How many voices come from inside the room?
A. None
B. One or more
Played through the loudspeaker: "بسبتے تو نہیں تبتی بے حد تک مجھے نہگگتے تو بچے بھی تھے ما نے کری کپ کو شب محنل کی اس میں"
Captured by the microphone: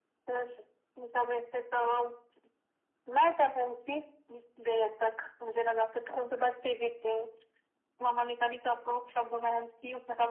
A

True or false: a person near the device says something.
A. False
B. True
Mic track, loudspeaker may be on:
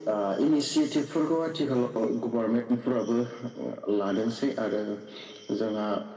A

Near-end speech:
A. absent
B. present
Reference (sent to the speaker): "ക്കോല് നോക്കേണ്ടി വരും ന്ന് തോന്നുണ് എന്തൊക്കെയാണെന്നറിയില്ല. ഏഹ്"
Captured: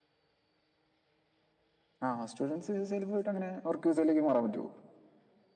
B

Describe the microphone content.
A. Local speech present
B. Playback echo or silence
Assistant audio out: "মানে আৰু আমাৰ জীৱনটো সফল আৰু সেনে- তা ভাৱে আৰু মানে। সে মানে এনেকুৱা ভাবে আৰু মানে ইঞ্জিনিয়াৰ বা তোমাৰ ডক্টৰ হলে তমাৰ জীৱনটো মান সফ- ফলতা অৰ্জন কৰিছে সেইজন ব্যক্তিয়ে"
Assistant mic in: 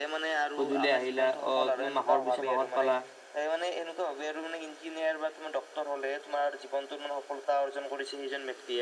A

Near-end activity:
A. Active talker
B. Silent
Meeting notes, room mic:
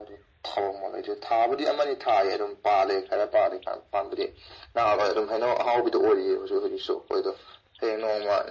B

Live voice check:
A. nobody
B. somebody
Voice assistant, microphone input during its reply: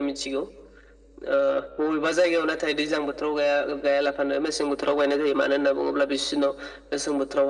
A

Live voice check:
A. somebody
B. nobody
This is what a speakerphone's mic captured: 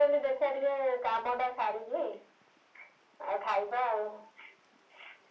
B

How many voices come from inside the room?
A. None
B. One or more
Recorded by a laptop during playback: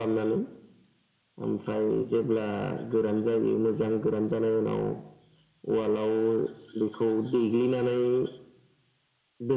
A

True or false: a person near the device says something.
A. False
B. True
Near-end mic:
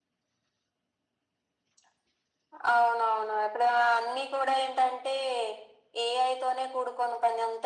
A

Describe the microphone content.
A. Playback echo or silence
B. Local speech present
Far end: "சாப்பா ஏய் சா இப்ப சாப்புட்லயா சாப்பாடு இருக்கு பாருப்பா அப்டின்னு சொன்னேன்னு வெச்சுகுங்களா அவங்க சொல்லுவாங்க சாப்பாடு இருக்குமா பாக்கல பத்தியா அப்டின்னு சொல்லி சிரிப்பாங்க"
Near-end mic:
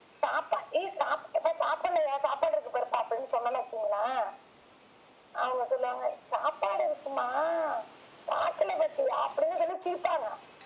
A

